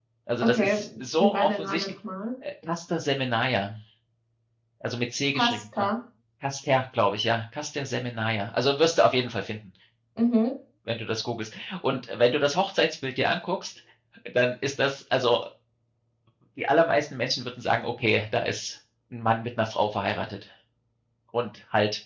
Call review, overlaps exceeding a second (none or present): present